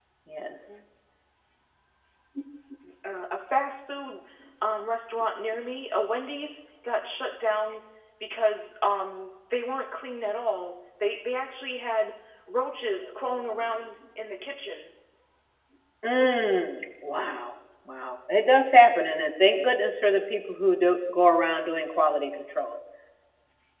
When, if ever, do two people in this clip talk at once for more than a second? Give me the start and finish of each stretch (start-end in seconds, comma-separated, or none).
none